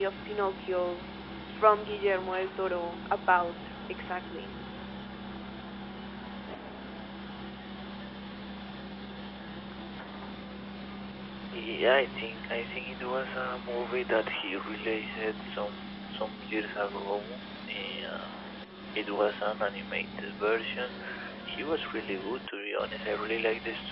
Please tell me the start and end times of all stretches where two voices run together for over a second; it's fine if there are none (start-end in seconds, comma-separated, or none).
none